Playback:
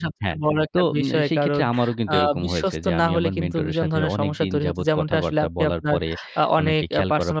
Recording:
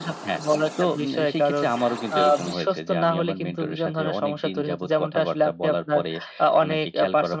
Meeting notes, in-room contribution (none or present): none